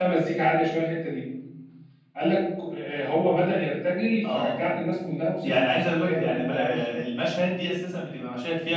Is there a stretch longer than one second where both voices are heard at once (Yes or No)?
Yes